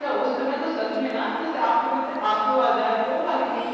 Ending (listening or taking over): taking over